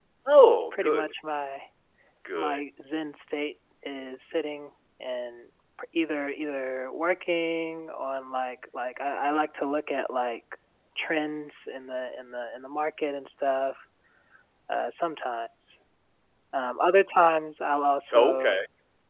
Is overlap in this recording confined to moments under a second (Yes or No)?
Yes